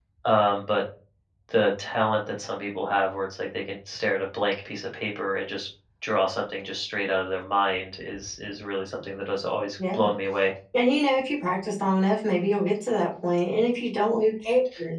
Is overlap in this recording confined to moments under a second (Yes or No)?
Yes